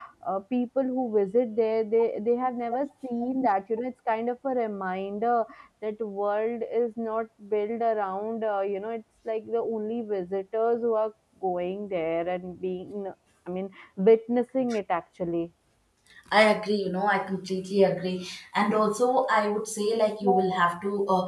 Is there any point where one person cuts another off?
No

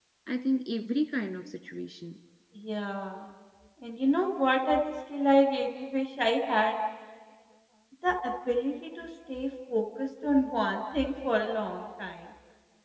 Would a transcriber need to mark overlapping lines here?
No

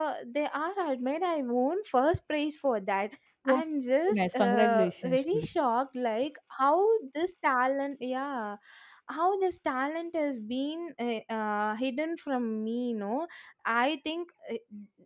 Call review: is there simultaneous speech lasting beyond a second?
Yes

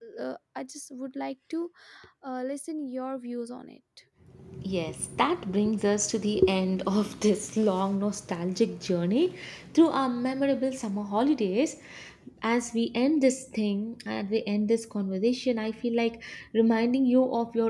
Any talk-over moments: No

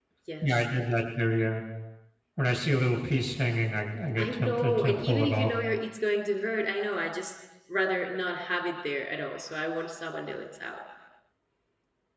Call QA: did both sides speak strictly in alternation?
No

